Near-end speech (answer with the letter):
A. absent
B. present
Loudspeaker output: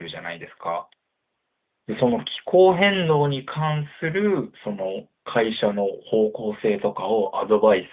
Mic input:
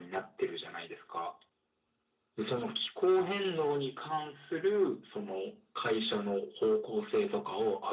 A